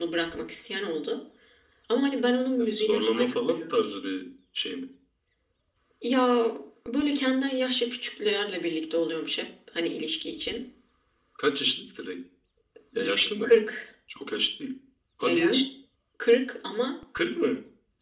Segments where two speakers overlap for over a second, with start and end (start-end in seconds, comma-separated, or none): 2.6-3.8